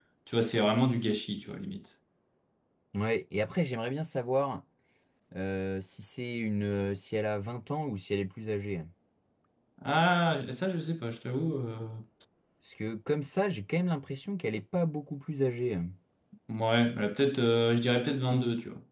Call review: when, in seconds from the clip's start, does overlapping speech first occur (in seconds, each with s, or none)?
none